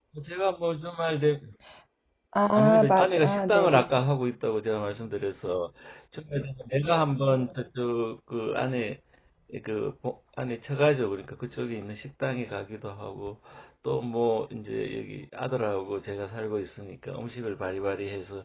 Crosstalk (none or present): present